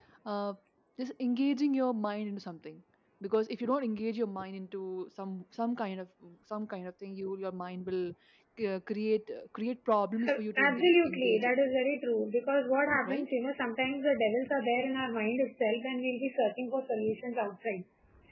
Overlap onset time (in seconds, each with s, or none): 10.2 s